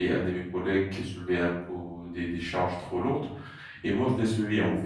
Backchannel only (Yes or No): Yes